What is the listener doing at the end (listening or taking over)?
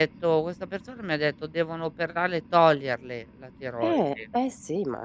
taking over